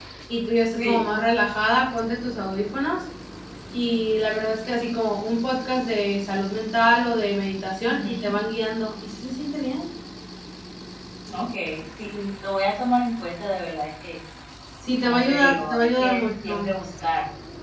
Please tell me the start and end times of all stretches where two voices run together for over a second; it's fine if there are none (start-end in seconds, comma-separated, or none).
15.0-16.7